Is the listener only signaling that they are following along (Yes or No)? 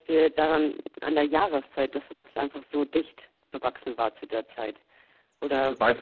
No